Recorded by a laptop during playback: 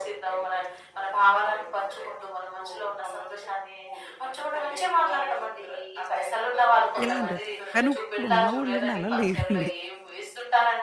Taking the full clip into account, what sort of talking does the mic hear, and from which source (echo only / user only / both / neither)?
both